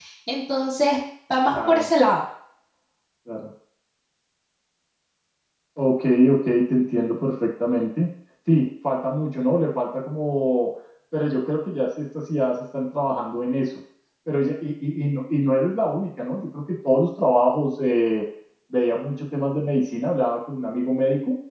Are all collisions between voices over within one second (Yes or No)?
Yes